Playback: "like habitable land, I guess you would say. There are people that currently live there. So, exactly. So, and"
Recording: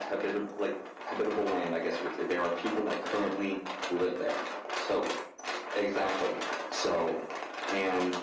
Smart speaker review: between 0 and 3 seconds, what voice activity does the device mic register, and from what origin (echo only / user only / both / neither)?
echo only